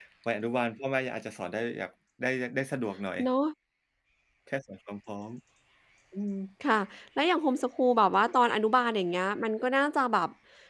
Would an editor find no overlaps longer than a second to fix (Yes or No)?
Yes